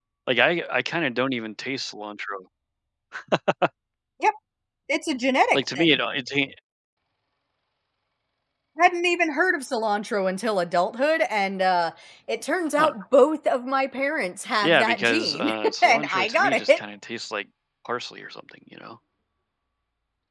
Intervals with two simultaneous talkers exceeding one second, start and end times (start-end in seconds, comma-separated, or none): 14.6-16.8